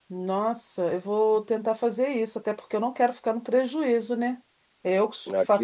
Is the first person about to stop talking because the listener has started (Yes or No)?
No